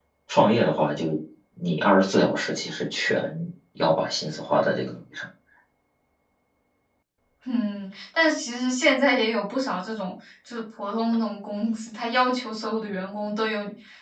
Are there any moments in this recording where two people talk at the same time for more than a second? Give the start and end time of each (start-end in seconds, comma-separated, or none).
none